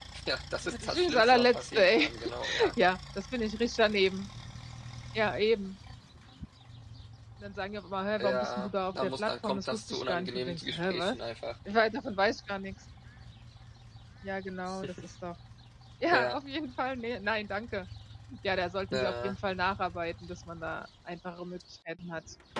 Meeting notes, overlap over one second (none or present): present